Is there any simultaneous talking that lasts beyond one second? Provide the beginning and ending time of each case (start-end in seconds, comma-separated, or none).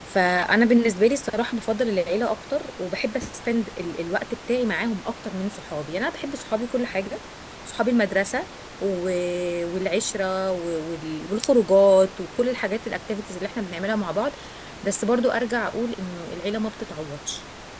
none